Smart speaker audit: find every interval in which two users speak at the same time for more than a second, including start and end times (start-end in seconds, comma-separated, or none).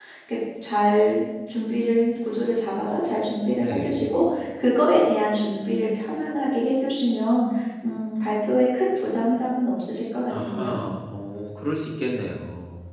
none